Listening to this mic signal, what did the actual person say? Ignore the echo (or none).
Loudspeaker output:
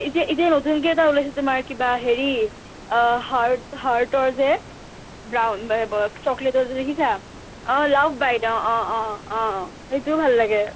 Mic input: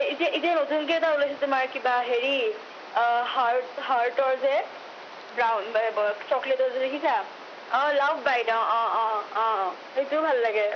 none